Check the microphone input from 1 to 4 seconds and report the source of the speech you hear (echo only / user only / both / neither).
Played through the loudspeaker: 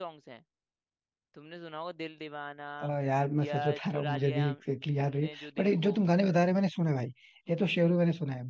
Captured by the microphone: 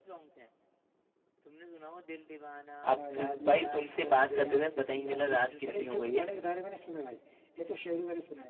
both